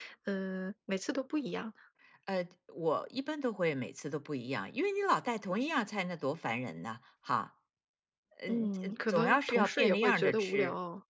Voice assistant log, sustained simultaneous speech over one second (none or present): present